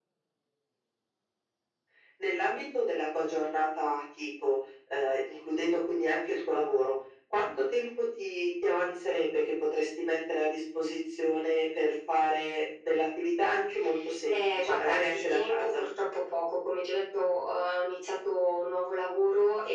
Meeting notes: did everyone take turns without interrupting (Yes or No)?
No